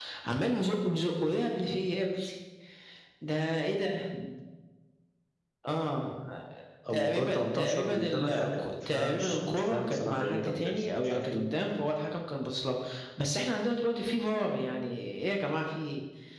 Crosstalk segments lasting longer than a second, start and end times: 6.9-11.5

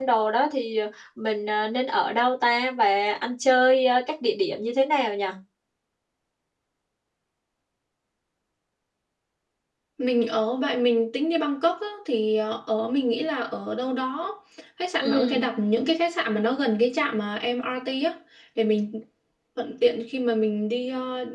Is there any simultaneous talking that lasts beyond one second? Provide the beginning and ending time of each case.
none

